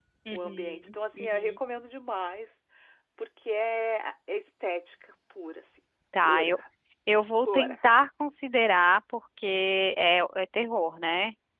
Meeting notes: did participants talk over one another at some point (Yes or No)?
Yes